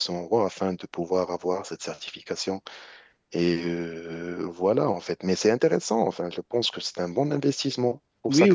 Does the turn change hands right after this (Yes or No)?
Yes